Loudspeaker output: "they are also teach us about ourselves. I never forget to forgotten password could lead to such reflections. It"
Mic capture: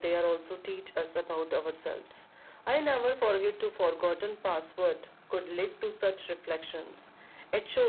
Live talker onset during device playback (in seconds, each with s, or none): none